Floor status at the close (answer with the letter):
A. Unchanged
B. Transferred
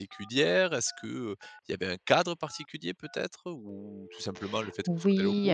B